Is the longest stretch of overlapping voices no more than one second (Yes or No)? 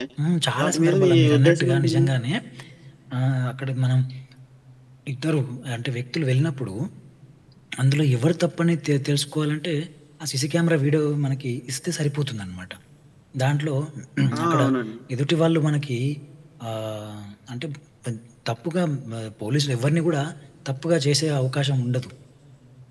No